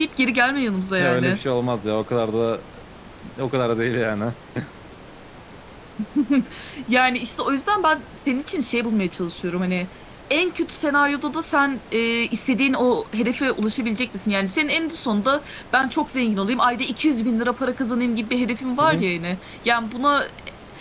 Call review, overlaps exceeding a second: none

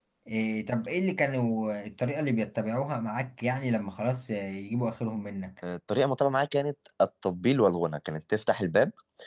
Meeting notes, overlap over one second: none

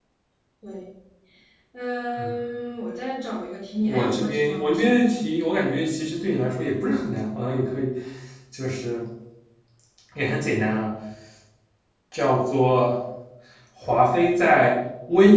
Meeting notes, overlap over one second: present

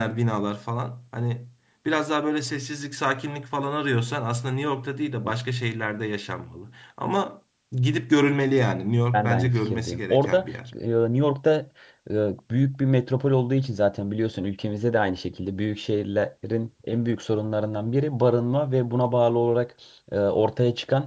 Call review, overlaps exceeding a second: present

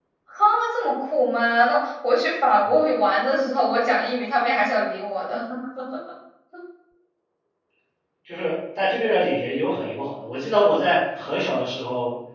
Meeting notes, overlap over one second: none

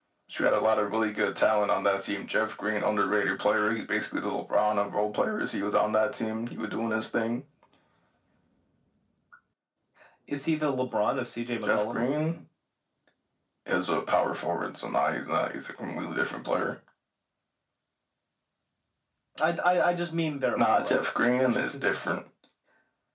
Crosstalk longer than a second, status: none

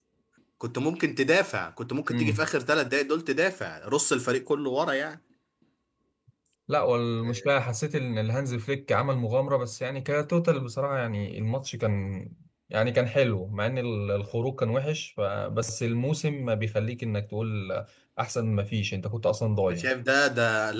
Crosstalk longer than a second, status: none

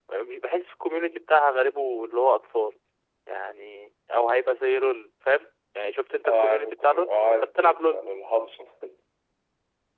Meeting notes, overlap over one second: present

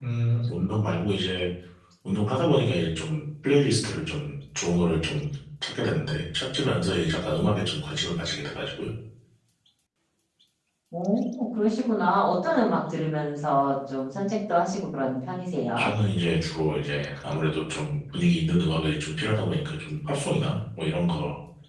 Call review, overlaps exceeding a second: none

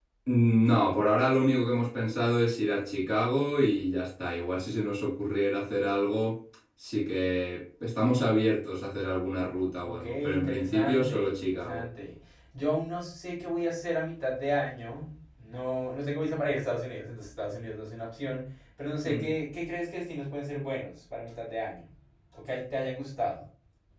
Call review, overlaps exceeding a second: present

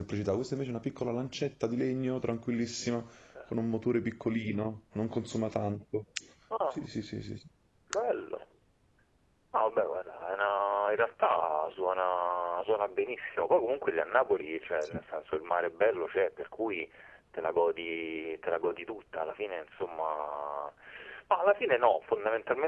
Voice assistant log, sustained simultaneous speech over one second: none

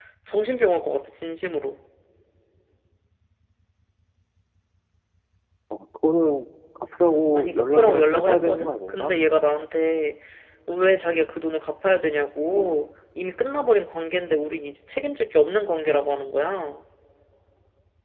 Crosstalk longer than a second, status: present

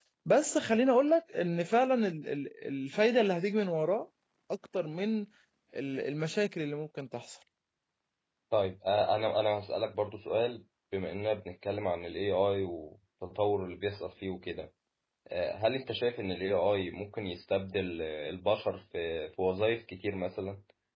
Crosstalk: none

